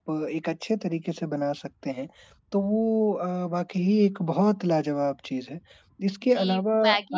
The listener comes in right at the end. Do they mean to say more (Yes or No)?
Yes